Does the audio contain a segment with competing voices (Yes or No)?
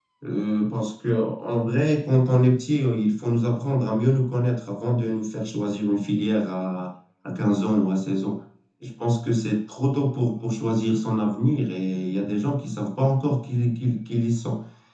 No